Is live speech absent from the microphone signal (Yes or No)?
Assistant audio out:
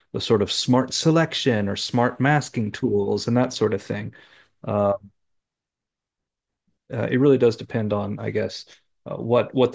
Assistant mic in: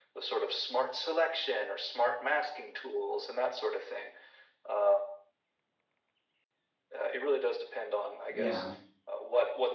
No